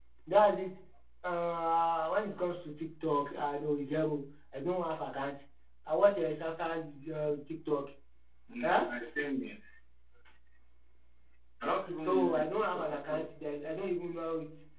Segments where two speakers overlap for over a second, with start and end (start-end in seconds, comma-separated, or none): 12.0-13.3